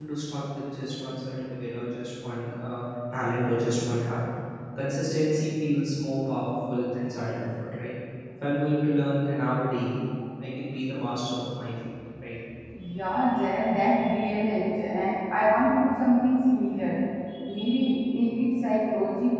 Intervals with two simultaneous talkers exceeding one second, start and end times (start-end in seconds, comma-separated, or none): none